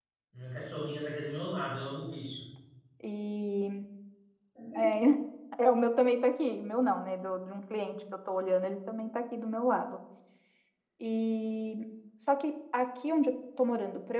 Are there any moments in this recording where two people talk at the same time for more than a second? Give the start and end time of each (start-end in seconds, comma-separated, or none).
none